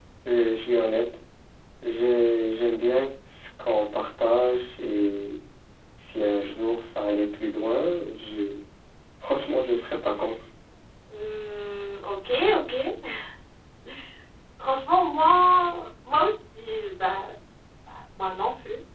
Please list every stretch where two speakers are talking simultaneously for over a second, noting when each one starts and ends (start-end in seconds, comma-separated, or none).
none